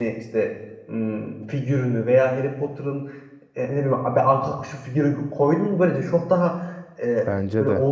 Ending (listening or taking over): listening